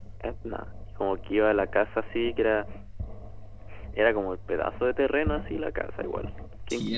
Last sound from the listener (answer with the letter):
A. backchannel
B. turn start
B